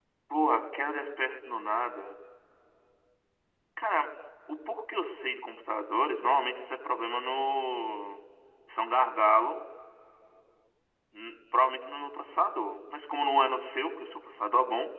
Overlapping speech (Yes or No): No